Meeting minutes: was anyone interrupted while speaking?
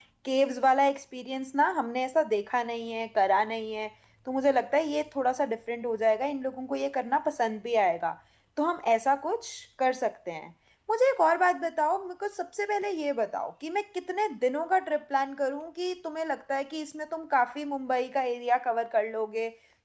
No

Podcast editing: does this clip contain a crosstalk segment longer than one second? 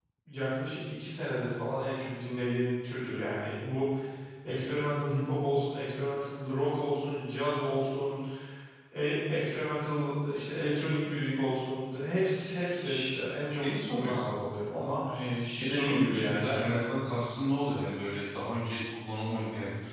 Yes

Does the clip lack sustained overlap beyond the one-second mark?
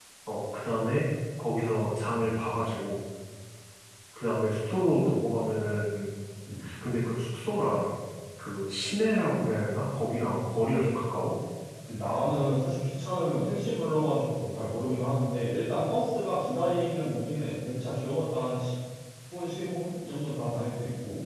Yes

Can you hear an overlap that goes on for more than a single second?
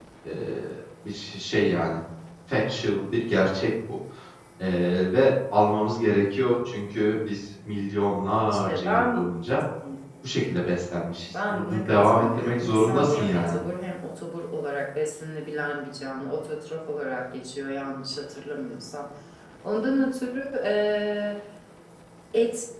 Yes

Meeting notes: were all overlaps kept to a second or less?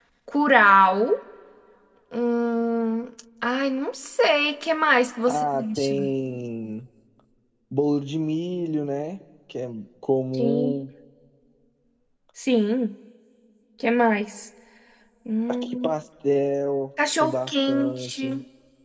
No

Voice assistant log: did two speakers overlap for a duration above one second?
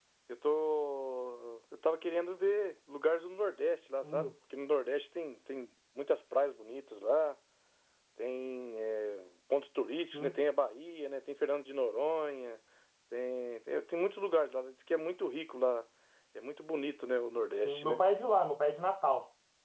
No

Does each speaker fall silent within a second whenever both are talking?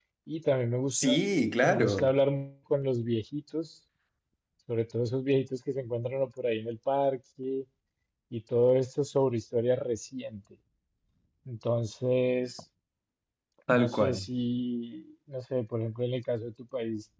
Yes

